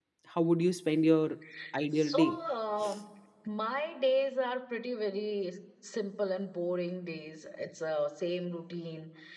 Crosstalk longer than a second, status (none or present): none